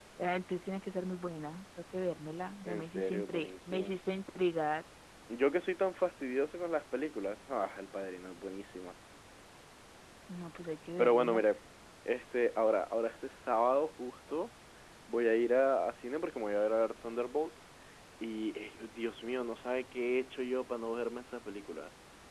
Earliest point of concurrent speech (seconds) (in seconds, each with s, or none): 2.6 s